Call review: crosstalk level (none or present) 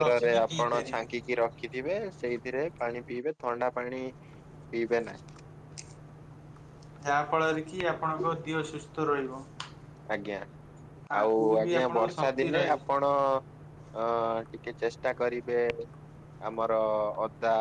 present